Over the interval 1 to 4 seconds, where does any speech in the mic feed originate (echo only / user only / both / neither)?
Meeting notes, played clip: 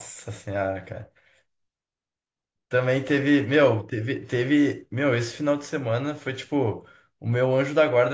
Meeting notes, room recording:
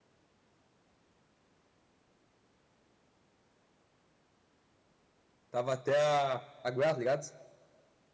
neither